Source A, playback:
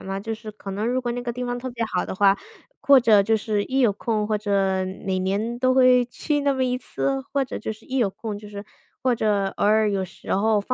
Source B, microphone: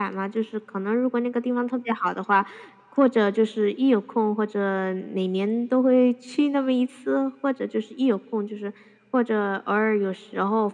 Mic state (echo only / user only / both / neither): echo only